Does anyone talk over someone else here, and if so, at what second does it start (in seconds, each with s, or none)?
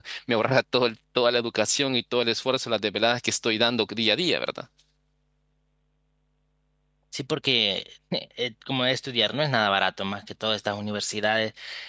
none